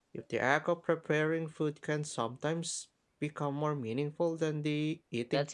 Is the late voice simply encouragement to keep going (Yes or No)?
No